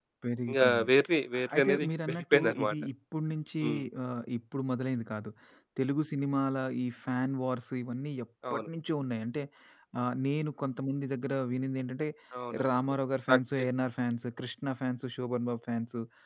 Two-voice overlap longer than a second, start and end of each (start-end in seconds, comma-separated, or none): 1.4-2.7